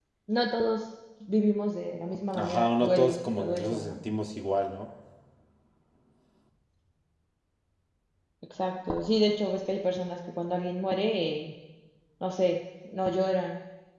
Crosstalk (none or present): present